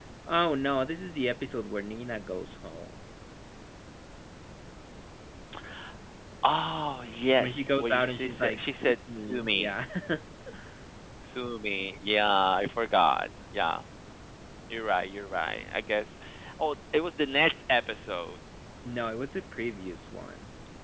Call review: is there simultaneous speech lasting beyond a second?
Yes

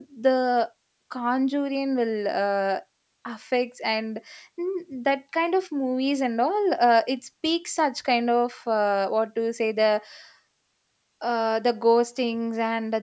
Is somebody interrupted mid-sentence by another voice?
No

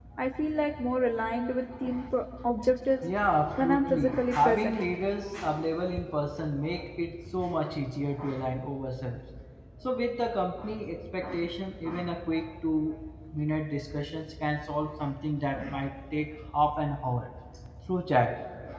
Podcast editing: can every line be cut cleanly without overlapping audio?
No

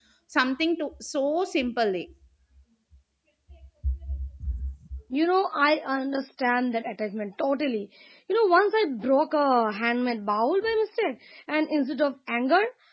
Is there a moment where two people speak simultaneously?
No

